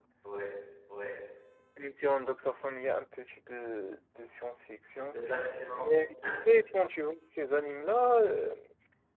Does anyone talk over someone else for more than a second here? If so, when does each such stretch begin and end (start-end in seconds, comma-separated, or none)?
none